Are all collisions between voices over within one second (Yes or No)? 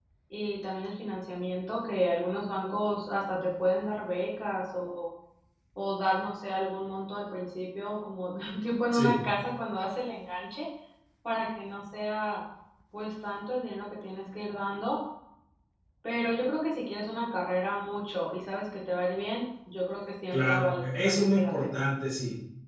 No